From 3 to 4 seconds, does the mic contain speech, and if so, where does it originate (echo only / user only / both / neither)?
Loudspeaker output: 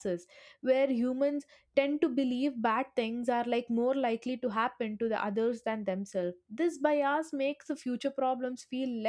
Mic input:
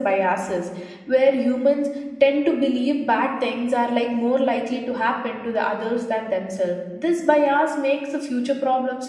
echo only